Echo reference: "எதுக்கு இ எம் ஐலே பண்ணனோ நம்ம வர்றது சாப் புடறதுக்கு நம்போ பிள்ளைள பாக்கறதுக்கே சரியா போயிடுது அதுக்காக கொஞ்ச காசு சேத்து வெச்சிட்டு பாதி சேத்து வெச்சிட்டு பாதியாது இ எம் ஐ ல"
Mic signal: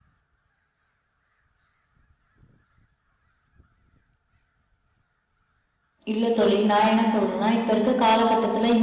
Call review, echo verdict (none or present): none